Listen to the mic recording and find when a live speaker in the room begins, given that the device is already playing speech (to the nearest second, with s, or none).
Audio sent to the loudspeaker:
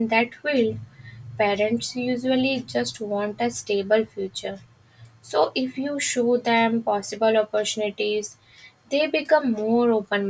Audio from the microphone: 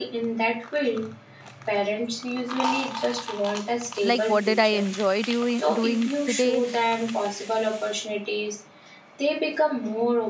4 s